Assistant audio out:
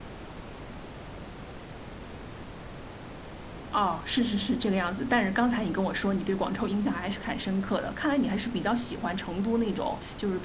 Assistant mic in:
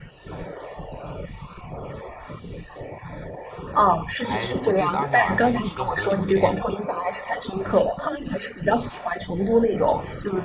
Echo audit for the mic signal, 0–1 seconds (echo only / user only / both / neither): neither